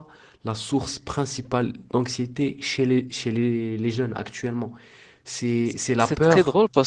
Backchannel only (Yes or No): No